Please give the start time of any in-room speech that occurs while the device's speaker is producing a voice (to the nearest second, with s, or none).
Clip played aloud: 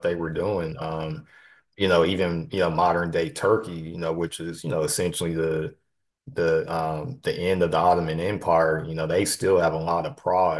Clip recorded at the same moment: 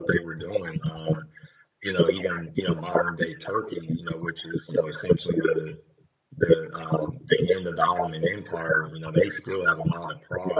none